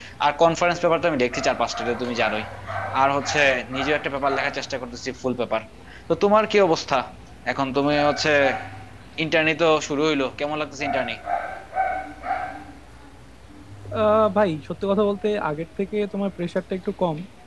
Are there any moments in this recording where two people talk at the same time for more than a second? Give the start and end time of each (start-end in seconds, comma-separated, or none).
none